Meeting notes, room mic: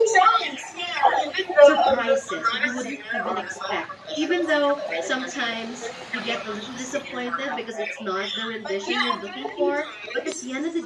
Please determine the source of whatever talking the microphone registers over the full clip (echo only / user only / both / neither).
both